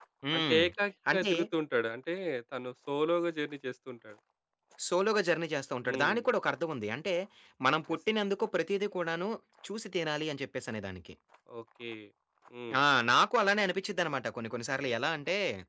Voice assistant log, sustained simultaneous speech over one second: none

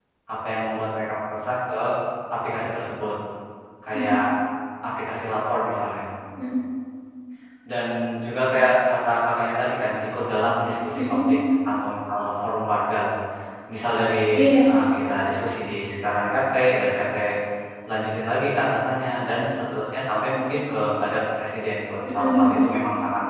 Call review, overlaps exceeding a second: none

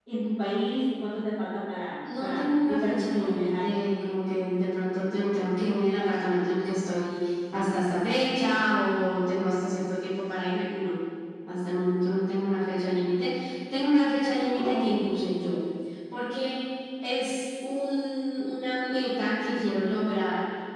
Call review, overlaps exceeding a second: present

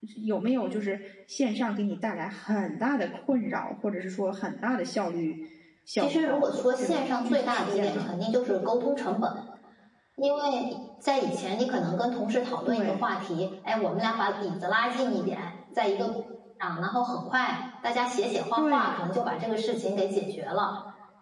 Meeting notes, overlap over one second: present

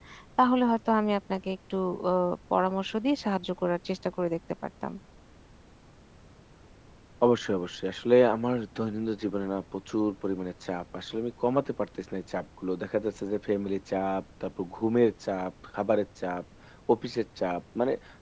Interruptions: none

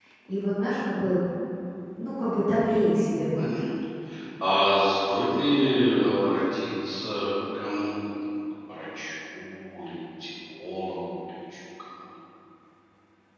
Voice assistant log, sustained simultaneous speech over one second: none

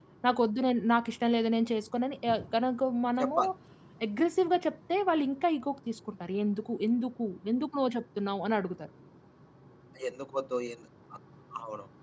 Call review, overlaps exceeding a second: none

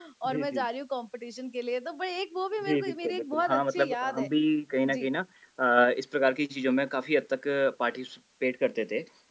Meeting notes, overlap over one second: present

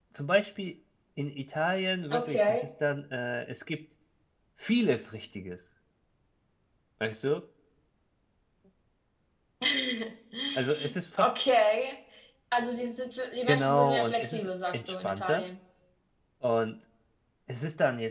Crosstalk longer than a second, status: present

